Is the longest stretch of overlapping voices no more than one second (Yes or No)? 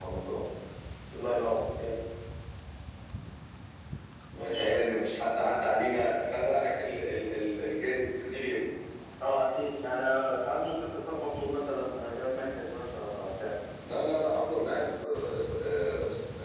Yes